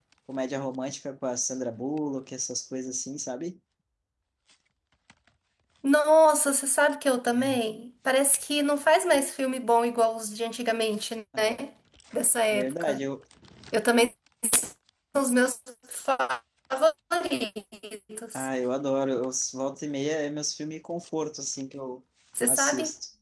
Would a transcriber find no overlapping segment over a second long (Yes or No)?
Yes